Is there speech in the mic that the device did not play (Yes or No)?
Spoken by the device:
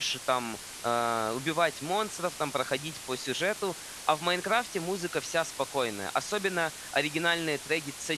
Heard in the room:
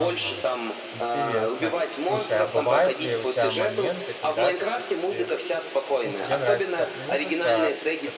Yes